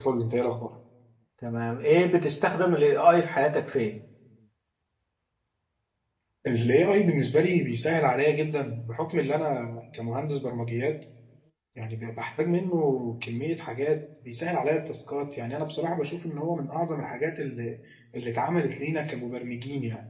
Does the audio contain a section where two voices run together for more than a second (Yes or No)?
No